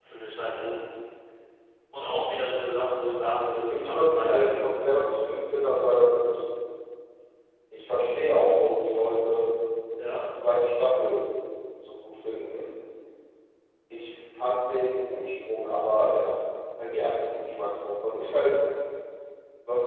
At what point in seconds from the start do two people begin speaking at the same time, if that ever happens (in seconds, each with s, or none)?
3.7 s